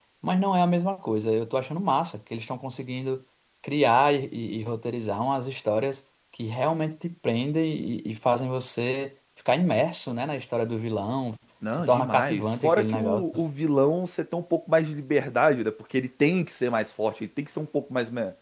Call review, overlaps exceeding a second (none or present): present